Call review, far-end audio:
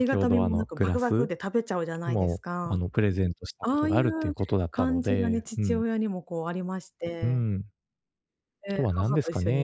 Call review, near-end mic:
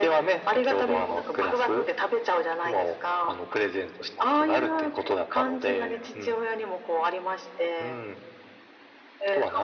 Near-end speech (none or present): none